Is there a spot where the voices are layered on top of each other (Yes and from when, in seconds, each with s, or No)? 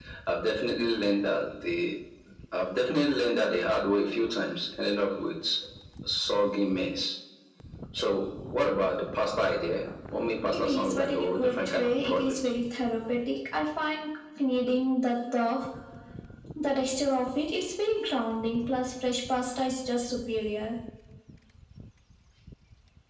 Yes, from 10.5 s